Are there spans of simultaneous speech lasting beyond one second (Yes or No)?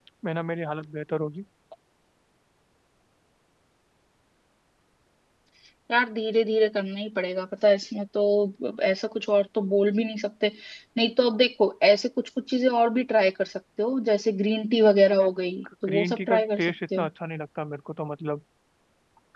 Yes